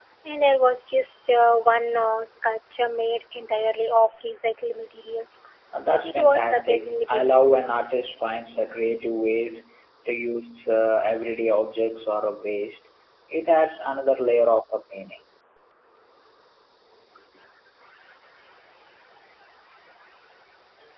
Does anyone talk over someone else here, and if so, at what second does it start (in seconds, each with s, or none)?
6.0 s